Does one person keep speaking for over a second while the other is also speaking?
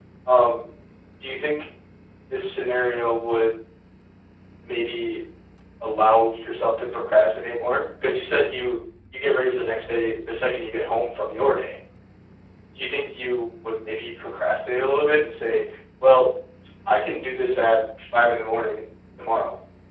No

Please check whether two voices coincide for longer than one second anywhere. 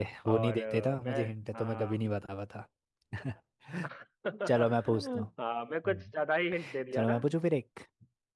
Yes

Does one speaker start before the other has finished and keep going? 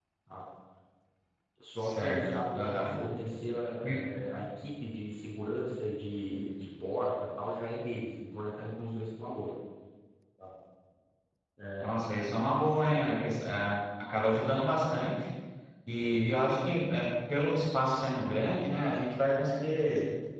Yes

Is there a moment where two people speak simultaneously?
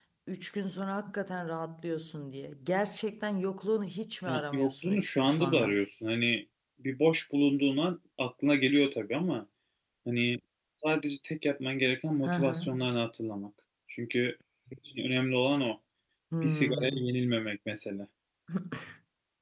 Yes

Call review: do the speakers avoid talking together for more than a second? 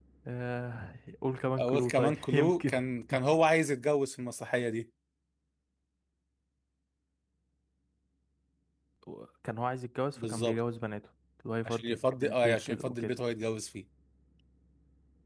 No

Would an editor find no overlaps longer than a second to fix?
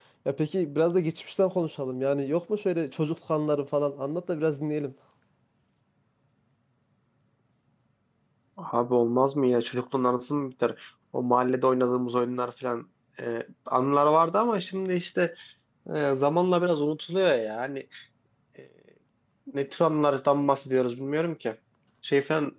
Yes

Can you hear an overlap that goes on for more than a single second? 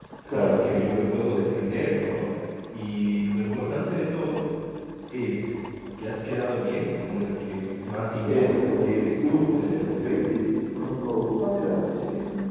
Yes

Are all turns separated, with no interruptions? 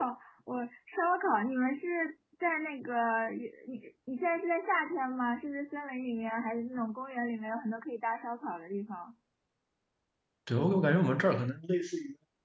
Yes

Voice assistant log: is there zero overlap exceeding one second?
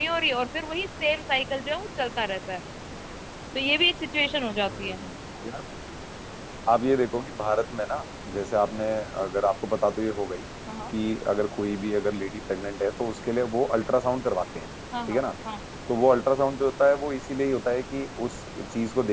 Yes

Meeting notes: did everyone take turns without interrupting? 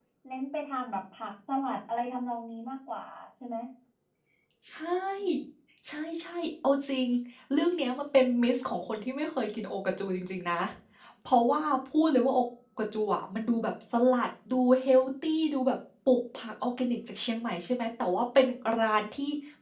Yes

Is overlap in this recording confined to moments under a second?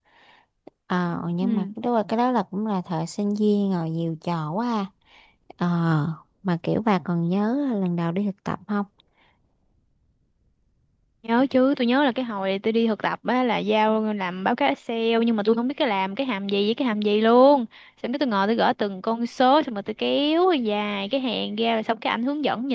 Yes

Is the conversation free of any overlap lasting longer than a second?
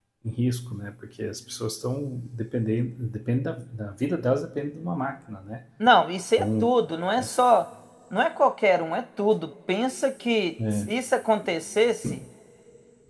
Yes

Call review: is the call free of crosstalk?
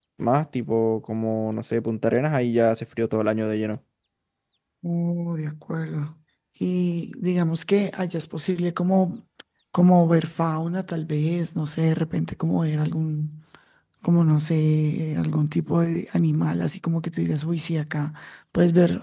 Yes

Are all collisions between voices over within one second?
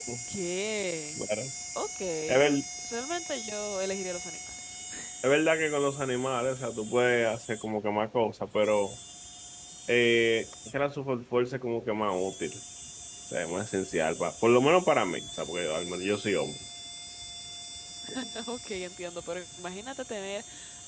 Yes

